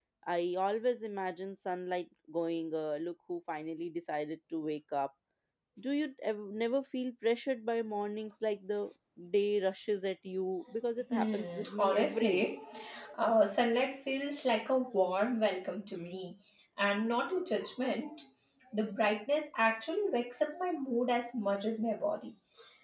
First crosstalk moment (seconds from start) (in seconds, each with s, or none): 11.1 s